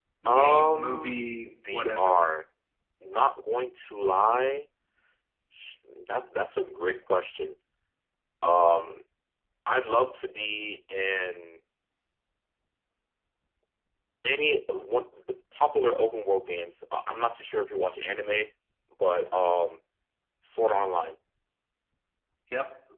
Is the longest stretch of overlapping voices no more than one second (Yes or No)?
No